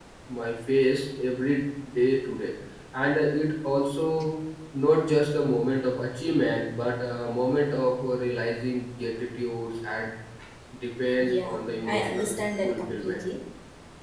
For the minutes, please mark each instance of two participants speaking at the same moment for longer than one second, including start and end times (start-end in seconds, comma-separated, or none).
11.4-13.2